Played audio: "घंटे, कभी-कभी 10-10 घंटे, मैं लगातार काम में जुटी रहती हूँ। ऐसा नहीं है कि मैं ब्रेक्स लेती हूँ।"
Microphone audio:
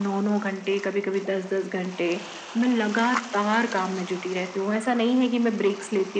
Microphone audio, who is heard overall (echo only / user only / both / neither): echo only